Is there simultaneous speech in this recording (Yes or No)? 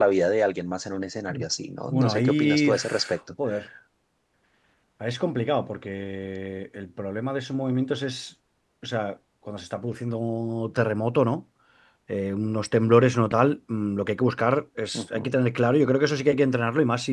Yes